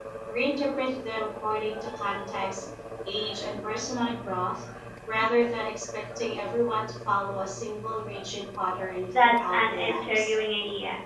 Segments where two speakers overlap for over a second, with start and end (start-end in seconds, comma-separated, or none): 9.1-10.3